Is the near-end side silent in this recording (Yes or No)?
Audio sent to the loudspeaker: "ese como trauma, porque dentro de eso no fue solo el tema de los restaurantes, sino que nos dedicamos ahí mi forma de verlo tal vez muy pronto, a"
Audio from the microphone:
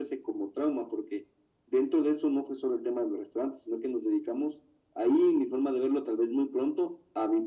Yes